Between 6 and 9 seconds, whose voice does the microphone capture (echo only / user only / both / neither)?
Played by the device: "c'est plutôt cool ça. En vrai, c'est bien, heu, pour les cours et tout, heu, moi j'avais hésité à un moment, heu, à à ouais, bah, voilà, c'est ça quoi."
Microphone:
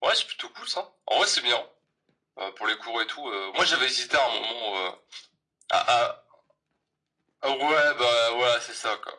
echo only